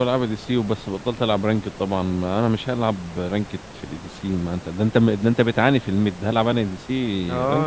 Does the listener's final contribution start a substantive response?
Yes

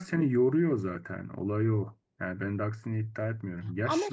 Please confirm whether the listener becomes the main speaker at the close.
No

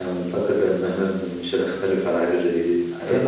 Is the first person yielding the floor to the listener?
Yes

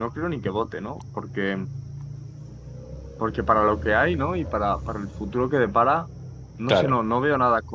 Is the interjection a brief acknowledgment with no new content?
Yes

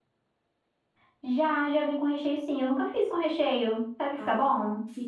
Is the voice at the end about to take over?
Yes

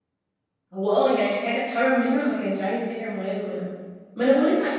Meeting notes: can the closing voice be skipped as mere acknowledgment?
Yes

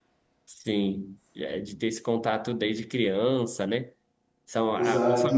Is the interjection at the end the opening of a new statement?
No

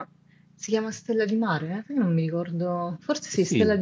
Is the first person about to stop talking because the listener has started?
Yes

